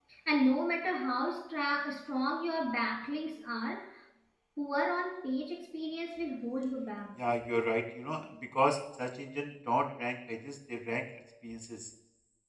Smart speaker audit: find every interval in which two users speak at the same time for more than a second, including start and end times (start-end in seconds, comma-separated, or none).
none